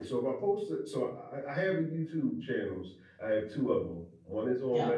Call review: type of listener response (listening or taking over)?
listening